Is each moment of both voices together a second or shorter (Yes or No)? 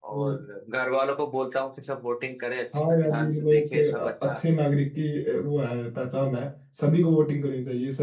No